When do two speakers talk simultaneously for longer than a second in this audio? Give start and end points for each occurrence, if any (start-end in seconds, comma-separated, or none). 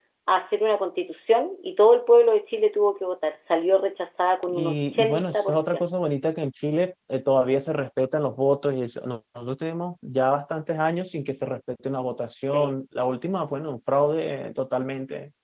4.5-5.8